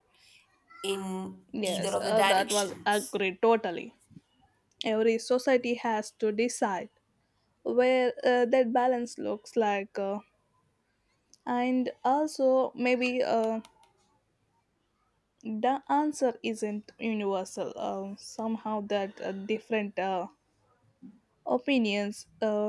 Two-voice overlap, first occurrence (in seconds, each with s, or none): 1.6 s